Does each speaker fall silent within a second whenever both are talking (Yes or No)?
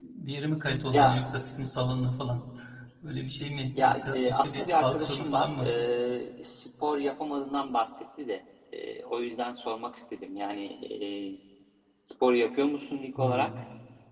No